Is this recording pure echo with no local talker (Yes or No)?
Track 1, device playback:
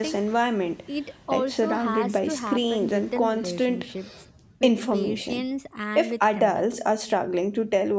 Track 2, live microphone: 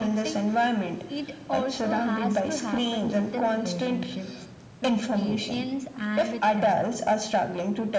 Yes